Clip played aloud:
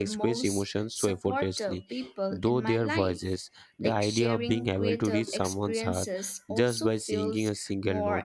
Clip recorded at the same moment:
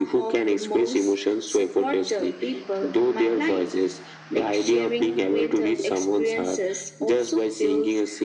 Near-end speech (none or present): none